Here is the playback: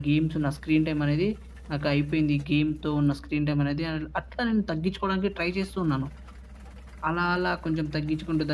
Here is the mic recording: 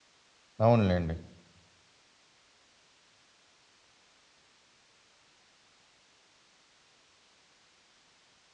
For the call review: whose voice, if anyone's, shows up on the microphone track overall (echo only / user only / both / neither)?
user only